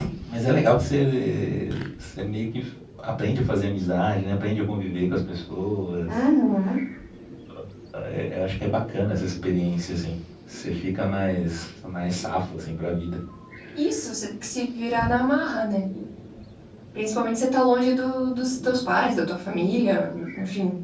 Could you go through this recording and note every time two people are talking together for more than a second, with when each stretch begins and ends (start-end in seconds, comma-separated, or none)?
none